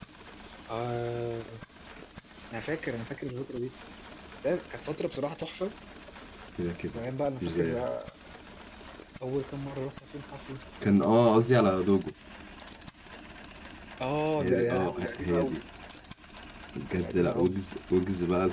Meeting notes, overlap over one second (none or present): present